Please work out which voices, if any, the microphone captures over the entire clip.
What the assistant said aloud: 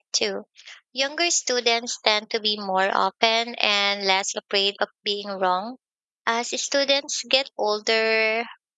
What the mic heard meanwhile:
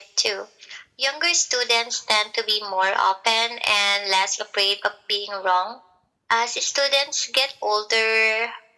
echo only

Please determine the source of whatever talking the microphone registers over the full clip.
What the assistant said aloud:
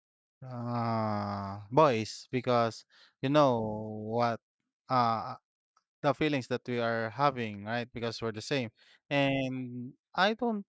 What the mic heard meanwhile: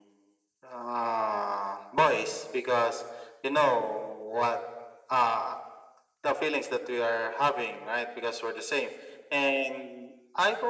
echo only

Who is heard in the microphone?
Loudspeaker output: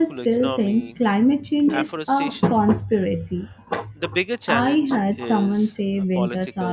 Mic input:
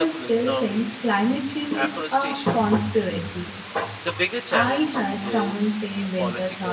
echo only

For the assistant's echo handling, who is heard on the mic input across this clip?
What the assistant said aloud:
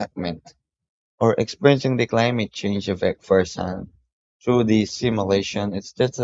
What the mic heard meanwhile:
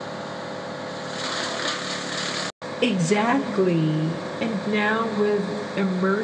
user only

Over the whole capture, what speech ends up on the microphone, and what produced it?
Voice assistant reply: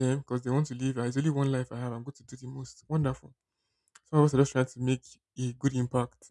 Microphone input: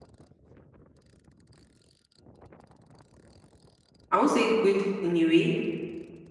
user only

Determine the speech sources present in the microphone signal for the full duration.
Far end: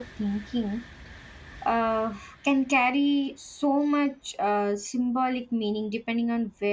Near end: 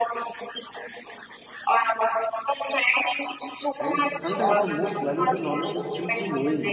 both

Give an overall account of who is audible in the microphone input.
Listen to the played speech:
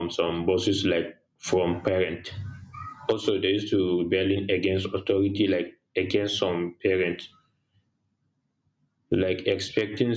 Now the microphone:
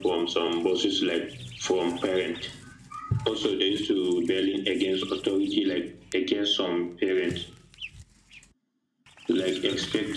echo only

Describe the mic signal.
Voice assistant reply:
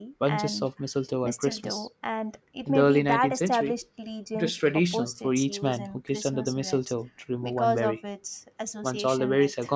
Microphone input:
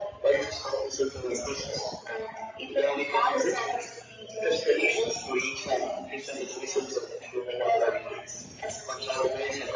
echo only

